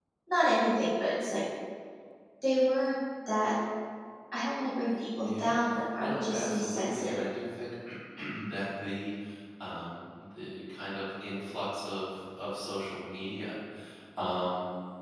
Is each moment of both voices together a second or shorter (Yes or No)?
No